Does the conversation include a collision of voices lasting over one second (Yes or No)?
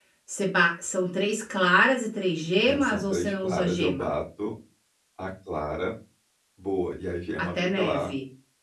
Yes